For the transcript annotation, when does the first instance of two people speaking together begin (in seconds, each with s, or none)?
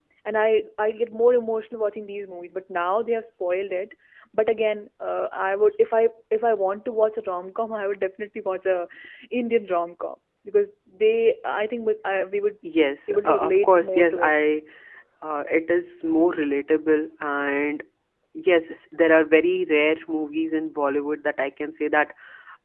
13.1 s